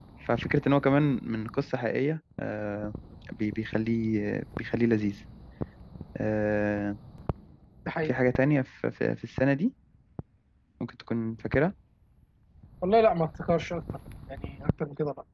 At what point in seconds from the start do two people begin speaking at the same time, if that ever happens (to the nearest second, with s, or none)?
none